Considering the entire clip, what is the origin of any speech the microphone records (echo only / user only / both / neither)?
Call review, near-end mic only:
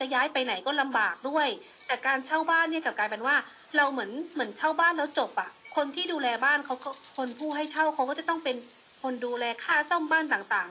echo only